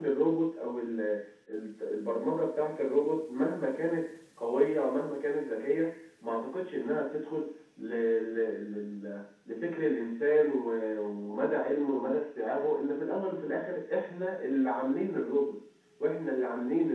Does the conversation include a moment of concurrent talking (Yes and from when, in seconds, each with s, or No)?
No